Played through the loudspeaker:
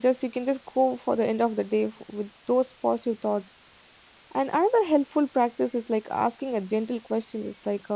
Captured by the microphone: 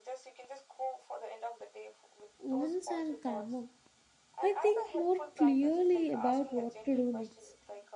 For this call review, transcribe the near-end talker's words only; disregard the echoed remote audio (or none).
Once I'm calmer, I think more clearly about what to do next.